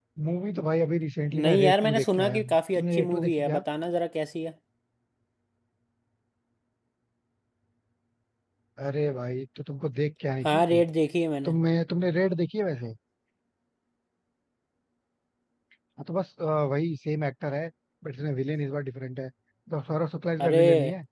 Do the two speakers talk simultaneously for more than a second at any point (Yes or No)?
Yes